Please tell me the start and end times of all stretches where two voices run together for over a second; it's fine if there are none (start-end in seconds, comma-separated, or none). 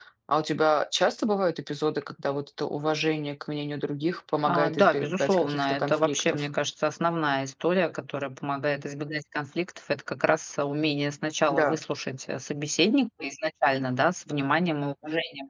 4.5-6.4